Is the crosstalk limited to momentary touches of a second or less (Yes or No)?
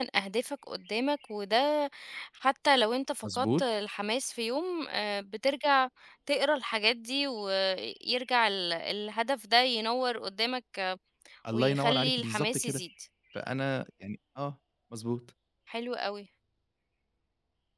No